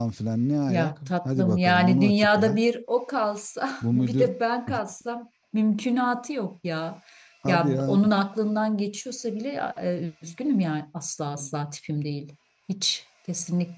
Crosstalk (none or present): present